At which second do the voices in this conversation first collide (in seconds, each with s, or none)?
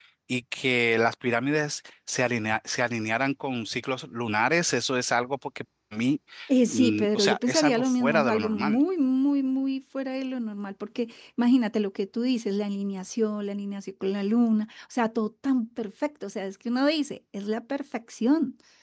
6.7 s